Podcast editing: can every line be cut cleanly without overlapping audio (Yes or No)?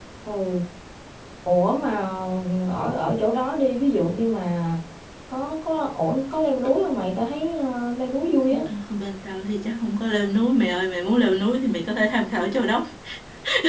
Yes